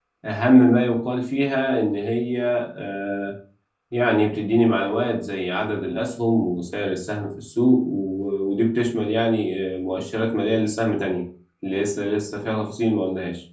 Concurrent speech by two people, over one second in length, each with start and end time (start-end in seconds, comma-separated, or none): none